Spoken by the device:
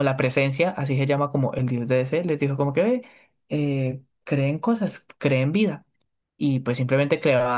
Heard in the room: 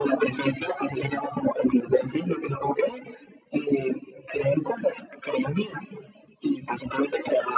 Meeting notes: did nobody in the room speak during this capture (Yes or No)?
Yes